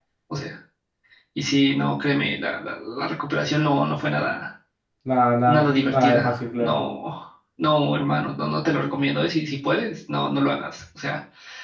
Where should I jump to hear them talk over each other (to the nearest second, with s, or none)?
5 s